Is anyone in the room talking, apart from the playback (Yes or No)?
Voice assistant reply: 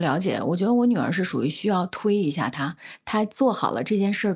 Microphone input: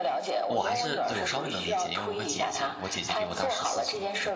Yes